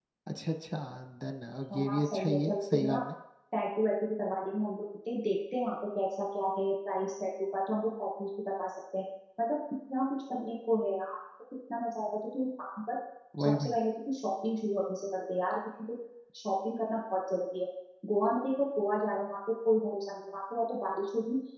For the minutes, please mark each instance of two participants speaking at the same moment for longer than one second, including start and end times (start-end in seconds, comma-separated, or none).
1.7-3.0